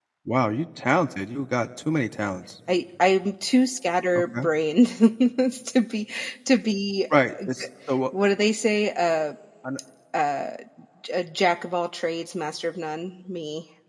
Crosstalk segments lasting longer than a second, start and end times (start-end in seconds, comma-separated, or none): none